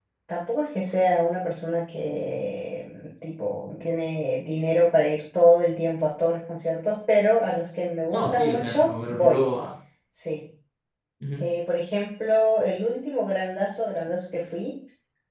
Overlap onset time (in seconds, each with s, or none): 8.1 s